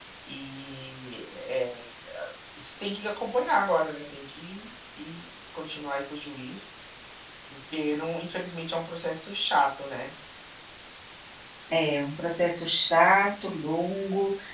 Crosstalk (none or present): none